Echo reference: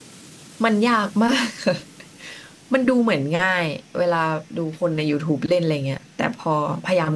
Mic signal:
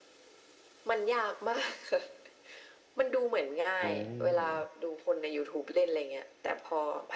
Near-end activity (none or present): present